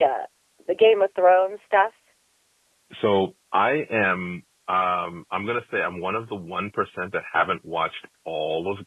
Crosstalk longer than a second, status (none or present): none